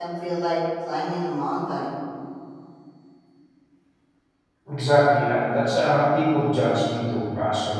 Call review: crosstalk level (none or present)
none